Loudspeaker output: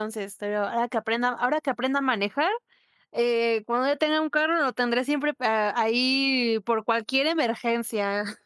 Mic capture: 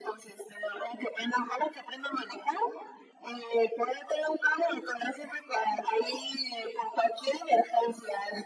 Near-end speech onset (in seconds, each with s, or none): none